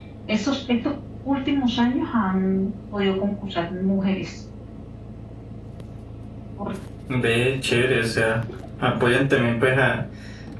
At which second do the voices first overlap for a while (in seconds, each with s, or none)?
none